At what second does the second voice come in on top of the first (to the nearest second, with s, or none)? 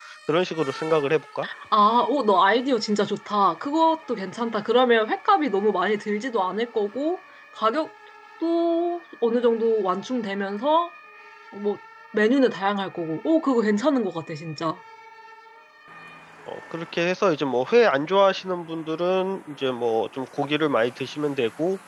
none